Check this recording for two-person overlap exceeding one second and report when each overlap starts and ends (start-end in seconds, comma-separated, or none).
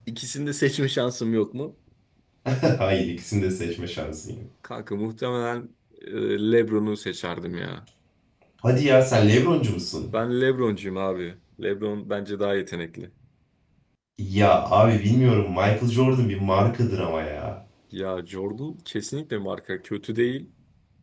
none